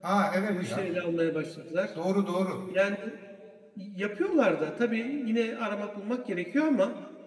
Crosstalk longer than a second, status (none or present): none